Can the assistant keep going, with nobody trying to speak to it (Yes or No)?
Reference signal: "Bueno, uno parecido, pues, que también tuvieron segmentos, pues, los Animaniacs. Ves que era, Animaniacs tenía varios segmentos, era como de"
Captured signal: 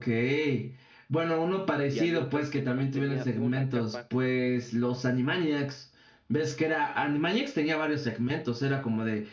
No